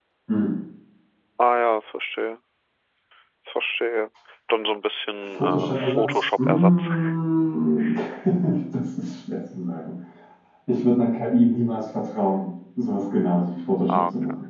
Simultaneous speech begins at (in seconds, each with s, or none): 5.2 s